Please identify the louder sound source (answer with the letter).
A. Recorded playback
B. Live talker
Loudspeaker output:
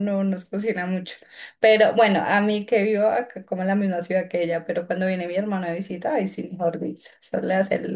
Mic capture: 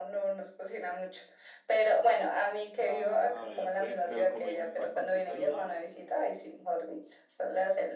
A